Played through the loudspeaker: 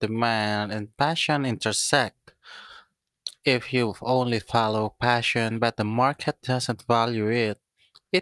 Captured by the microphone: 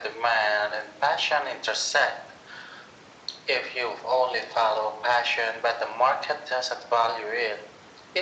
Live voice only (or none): none